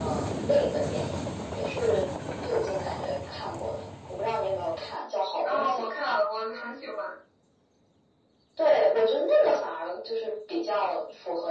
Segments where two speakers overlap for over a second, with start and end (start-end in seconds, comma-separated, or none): none